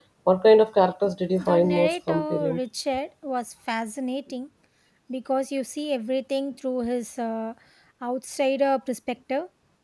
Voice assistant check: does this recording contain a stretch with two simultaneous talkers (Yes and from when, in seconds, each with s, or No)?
Yes, from 1.4 s